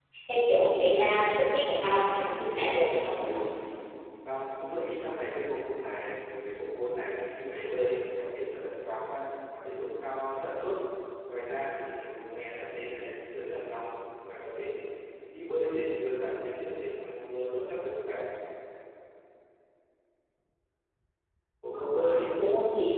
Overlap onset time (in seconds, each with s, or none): 2.0 s